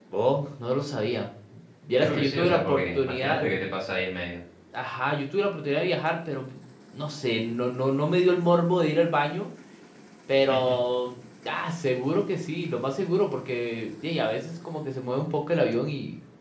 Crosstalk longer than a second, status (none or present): present